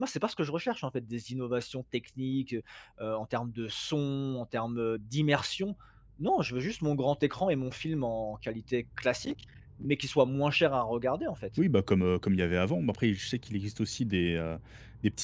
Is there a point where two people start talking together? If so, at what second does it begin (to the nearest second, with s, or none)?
none